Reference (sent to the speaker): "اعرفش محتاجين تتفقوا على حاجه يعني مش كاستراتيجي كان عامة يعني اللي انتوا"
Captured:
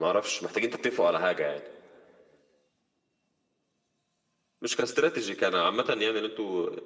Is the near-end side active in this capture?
No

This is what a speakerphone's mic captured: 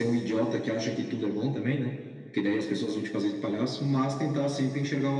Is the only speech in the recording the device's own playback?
Yes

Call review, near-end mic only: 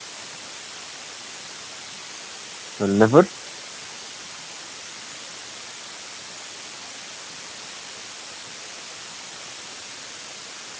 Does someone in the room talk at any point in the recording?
Yes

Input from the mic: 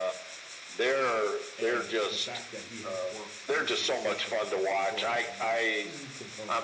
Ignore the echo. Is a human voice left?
Yes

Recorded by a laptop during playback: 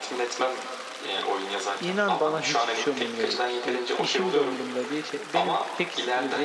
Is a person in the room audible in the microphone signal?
Yes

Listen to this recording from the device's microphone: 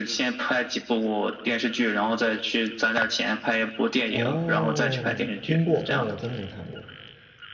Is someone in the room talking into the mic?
Yes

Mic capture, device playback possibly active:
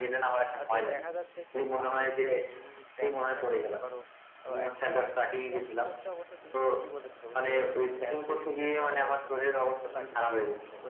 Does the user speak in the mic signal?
Yes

